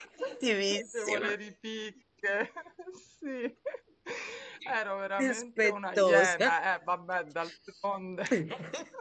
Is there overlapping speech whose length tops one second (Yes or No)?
Yes